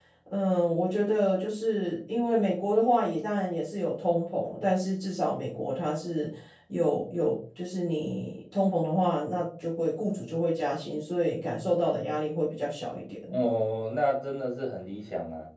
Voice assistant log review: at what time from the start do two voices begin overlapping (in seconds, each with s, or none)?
none